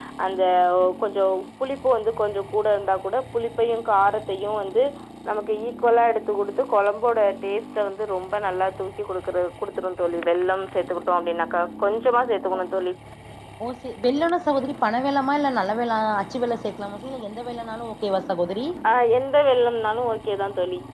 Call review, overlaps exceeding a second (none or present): none